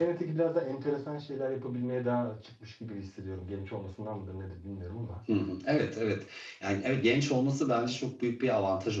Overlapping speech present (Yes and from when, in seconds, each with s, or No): No